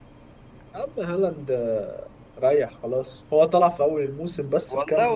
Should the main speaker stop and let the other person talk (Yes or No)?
Yes